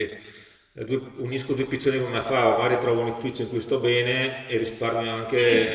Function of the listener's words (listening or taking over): taking over